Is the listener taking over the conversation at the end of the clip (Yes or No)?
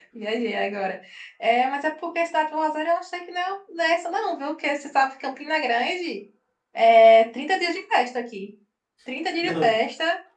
No